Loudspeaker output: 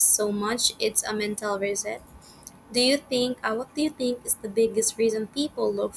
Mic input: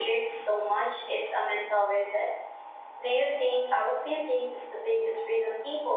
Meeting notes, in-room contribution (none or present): none